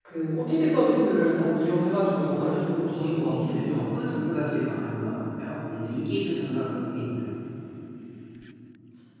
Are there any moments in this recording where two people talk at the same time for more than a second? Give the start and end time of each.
2.3-3.9

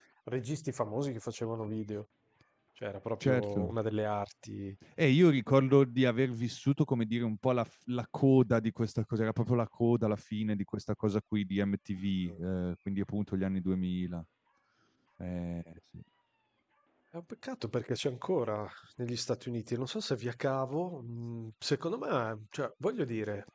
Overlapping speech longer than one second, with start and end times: none

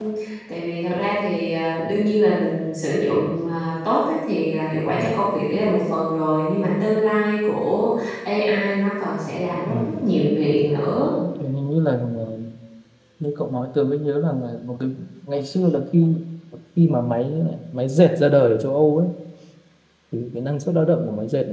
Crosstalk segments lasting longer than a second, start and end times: none

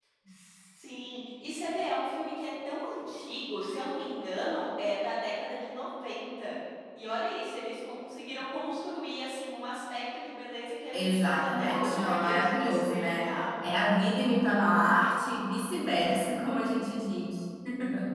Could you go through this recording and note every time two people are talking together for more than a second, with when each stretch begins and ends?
10.9-13.3

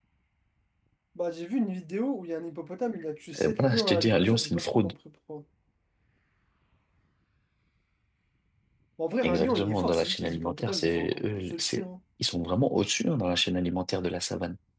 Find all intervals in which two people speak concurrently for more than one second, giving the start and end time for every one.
3.4-4.9, 9.2-11.8

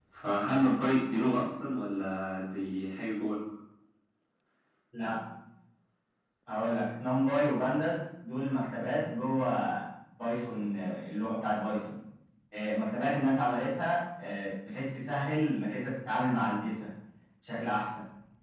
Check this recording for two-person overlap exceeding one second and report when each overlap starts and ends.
none

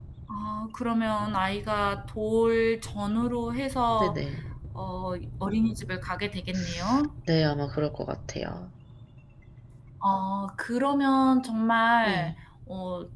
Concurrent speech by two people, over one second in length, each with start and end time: none

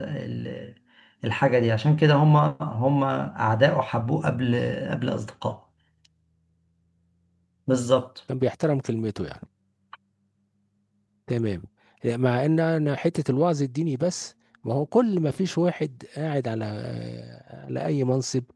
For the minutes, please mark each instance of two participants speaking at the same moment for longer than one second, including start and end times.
none

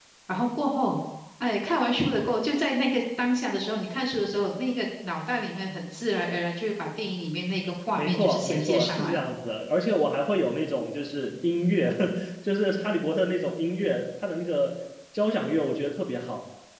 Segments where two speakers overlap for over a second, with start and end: 8.0-9.3

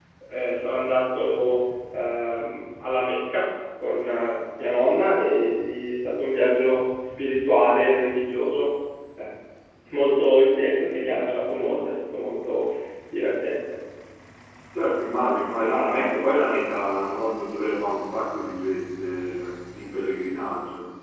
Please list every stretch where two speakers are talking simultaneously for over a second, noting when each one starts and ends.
none

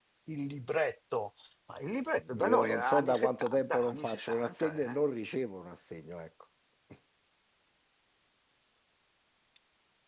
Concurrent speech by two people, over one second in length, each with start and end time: 2.5-5.0

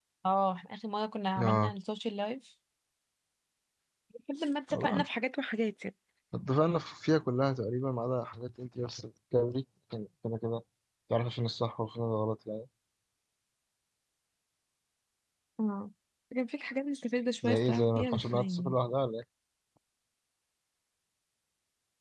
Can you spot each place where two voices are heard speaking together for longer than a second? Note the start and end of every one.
17.4-18.8

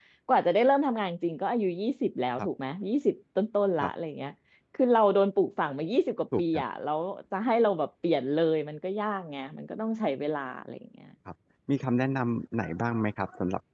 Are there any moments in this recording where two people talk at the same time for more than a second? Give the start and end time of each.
none

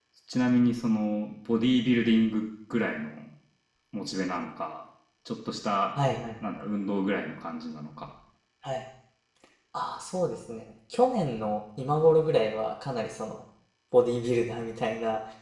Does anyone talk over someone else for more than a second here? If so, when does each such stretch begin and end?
none

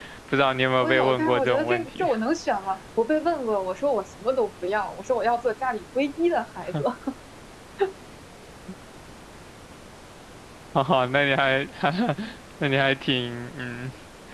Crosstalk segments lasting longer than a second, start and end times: 0.8-2.1

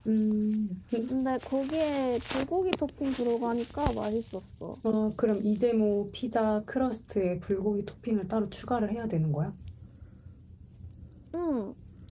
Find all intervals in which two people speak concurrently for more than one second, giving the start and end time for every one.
none

